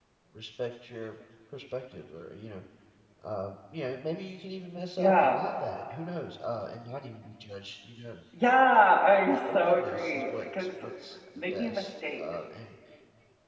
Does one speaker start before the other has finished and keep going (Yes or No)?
Yes